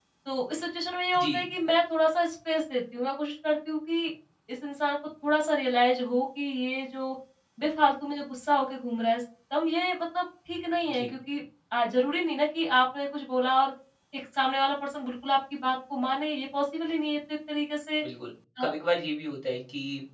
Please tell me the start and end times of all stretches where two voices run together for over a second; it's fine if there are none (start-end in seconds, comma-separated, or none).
none